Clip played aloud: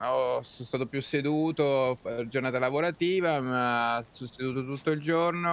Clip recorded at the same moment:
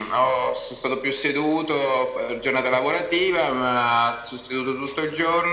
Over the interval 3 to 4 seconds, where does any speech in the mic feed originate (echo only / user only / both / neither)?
echo only